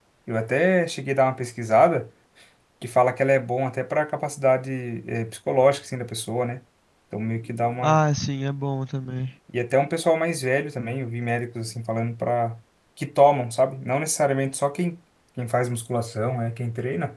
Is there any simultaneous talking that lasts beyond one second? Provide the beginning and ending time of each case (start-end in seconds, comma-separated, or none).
none